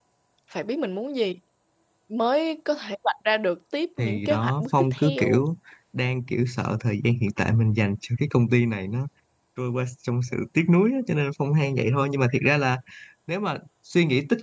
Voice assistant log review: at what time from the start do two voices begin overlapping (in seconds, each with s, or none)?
4.0 s